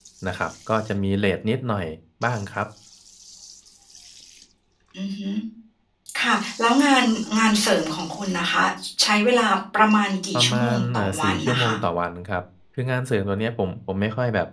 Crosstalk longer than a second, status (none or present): present